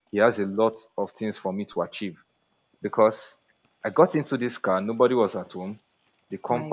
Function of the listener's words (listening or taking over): listening